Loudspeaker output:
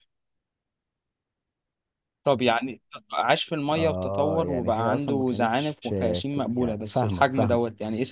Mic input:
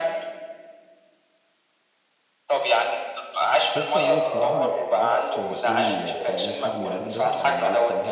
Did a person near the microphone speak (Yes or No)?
Yes